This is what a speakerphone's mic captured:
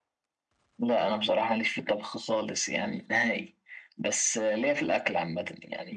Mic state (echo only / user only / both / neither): echo only